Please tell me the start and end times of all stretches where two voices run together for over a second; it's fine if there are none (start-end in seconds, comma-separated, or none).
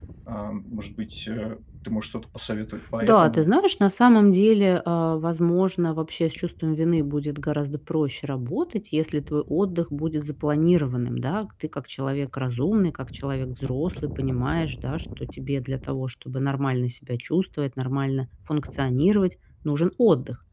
none